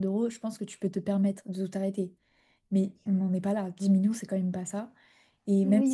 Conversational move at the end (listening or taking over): taking over